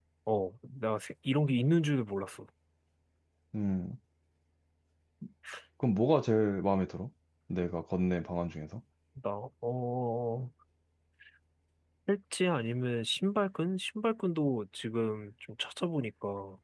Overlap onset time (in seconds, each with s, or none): none